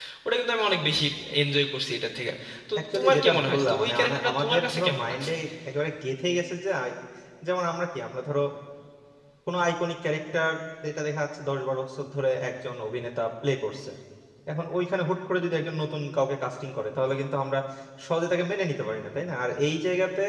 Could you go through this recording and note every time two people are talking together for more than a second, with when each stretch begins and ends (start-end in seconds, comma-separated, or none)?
2.9-5.3